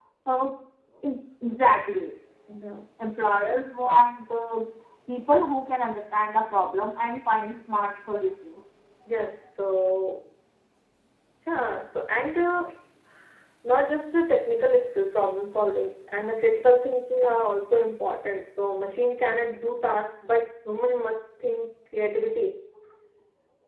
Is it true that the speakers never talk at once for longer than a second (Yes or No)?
Yes